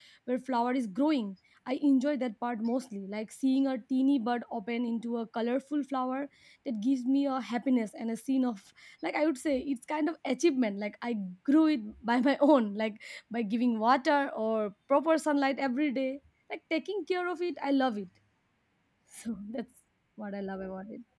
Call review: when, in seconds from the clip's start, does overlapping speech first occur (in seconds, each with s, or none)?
none